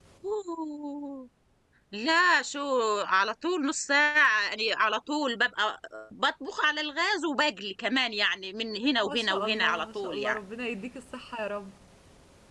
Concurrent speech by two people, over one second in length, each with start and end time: 9.0-10.4

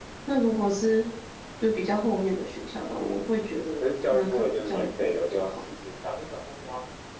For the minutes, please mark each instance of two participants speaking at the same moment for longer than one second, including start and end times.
3.8-5.5

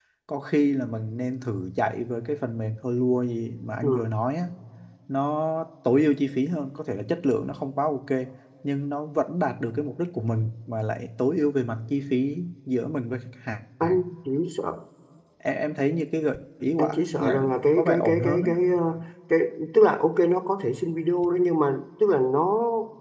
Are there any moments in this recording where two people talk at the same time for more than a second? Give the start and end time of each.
16.8-18.5

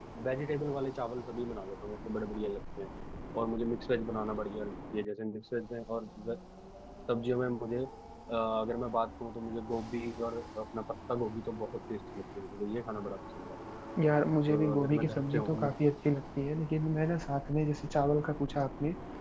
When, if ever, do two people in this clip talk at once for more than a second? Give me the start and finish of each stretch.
14.5-15.7

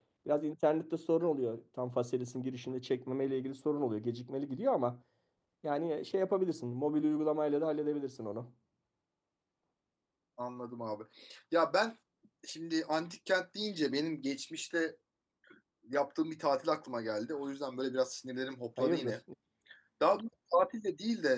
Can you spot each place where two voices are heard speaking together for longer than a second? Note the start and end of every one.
none

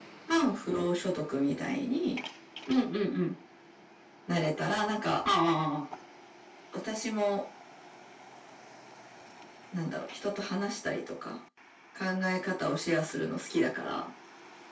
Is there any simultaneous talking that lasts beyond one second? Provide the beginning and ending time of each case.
none

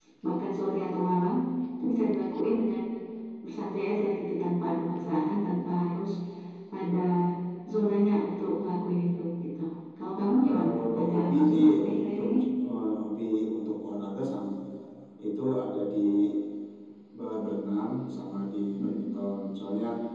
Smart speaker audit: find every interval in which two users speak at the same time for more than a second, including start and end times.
10.4-12.3

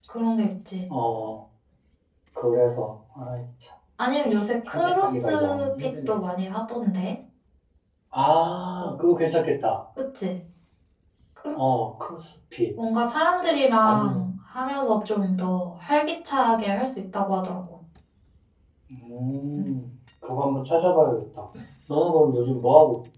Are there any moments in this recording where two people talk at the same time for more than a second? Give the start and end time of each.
4.7-6.1

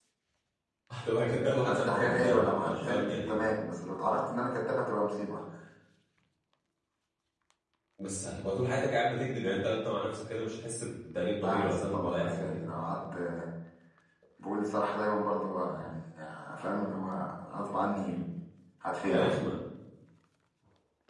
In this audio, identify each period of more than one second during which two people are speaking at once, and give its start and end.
1.7-3.5, 11.4-12.7

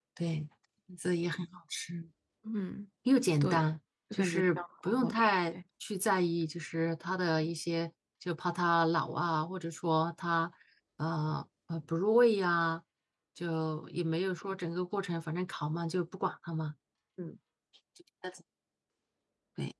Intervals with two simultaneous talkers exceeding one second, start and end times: 4.1-5.6

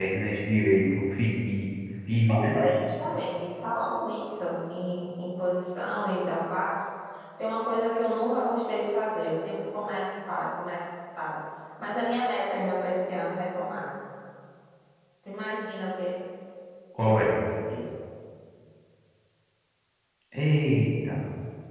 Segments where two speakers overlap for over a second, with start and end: none

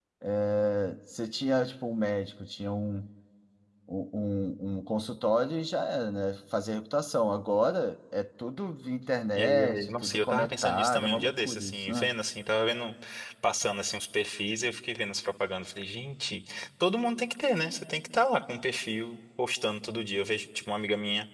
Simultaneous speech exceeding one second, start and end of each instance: 9.4-12.1

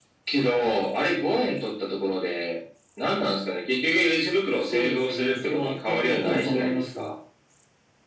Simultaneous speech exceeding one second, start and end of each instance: 4.7-7.1

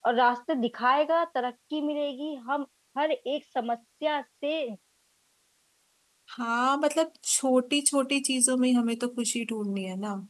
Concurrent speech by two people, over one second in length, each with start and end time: none

